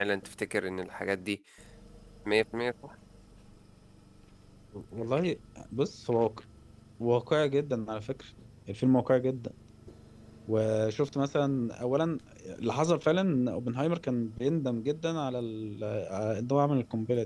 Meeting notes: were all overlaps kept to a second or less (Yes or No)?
Yes